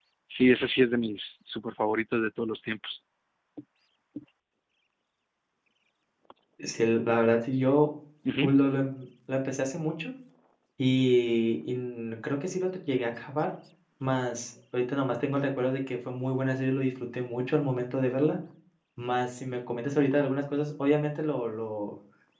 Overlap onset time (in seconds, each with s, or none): none